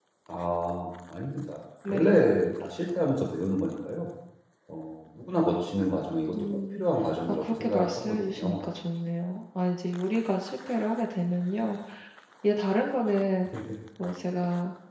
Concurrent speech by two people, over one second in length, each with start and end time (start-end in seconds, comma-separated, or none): 7.3-8.6